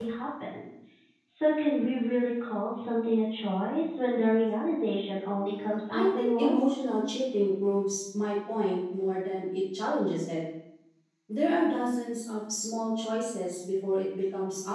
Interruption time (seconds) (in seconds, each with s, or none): 5.3 s